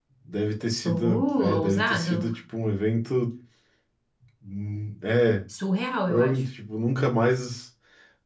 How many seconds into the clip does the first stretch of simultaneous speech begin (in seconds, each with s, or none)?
0.8 s